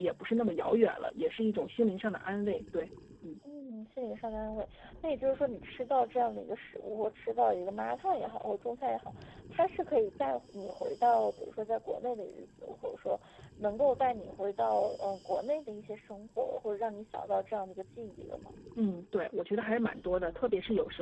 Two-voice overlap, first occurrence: none

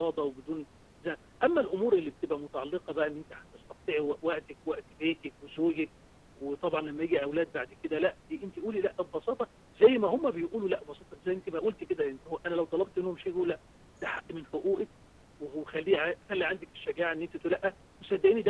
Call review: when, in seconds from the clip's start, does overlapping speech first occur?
none

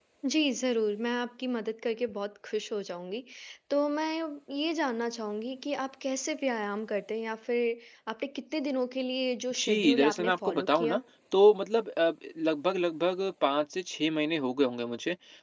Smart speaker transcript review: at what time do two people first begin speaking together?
9.6 s

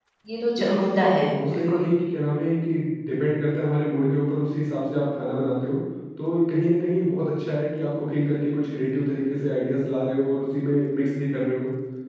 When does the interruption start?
0.6 s

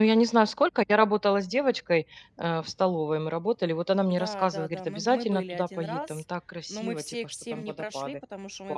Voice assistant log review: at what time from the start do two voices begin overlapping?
4.1 s

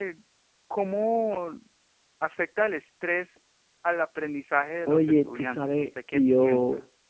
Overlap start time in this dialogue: 4.9 s

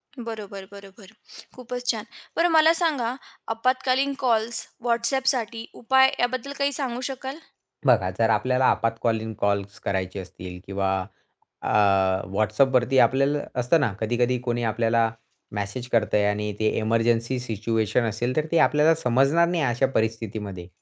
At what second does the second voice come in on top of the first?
none

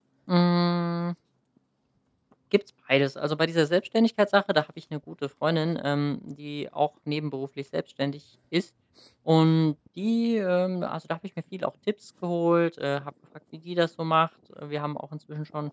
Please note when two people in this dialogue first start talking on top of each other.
none

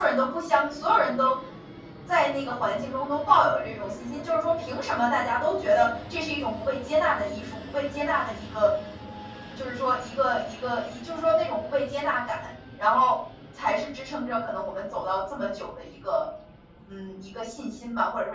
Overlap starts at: none

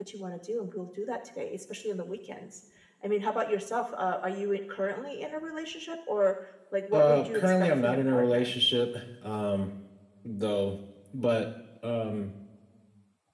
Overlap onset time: 6.9 s

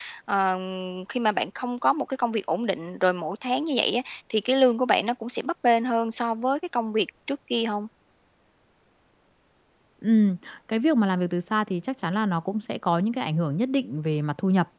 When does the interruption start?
none

